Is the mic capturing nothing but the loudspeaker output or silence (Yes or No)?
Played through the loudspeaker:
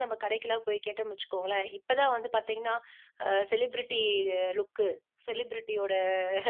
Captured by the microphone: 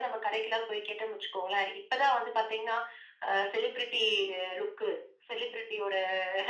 Yes